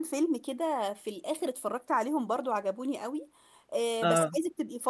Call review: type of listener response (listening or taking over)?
listening